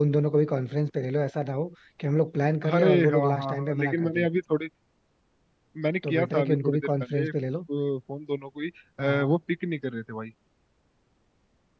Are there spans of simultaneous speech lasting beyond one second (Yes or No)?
Yes